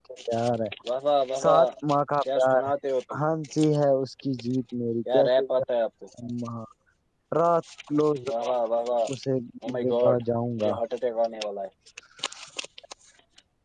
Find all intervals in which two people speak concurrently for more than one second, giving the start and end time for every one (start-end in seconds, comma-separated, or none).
none